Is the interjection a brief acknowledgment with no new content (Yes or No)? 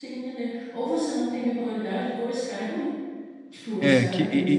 No